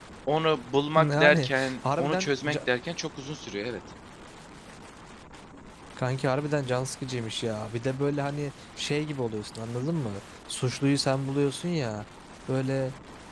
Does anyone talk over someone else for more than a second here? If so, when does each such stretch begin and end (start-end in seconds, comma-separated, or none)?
0.9-2.6